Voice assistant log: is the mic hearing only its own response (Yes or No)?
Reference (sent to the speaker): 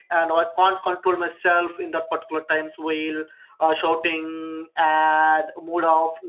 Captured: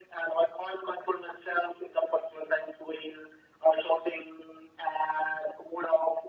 Yes